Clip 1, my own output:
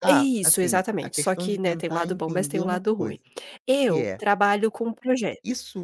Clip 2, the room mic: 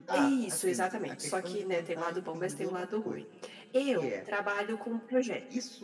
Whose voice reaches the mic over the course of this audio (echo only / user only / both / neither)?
echo only